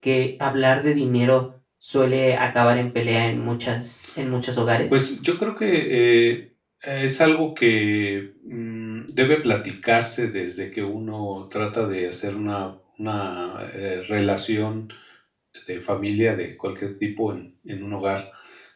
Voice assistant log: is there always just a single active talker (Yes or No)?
Yes